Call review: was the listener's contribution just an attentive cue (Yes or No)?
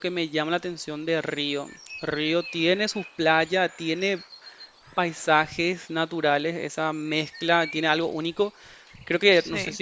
Yes